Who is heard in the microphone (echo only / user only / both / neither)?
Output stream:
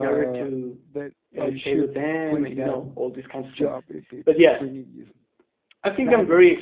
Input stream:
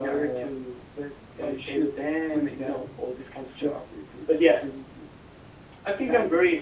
echo only